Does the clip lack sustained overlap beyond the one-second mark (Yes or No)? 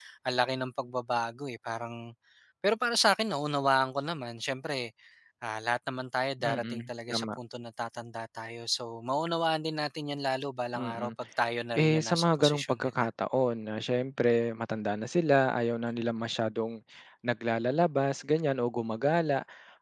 No